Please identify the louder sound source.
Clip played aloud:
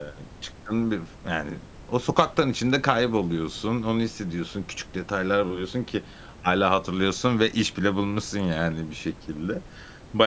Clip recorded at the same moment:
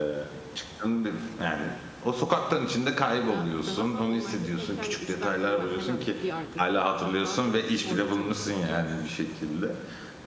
echo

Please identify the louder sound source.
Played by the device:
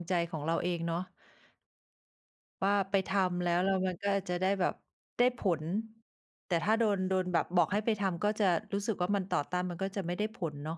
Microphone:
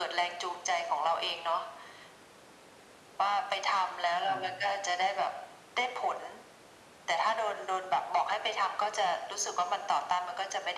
echo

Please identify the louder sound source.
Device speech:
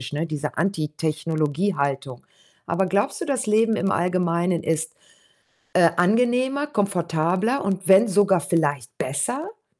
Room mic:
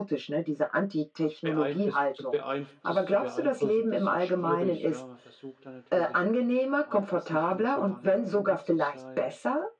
echo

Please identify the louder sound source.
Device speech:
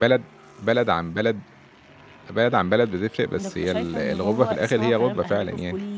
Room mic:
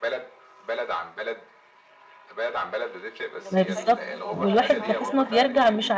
user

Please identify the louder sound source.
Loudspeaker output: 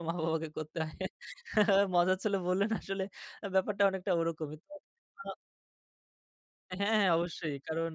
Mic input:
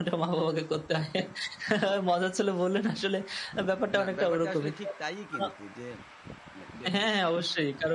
echo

